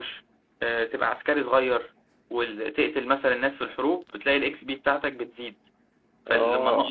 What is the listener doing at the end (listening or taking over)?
listening